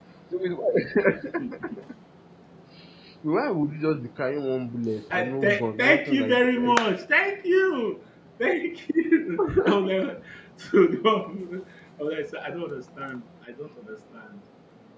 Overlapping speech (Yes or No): Yes